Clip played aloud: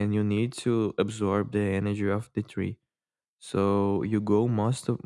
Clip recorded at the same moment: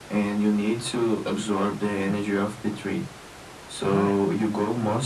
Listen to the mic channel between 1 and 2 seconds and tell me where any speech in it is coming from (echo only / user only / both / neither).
echo only